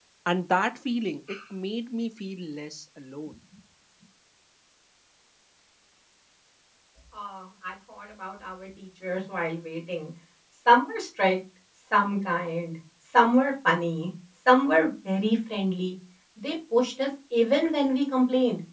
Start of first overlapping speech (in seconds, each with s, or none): none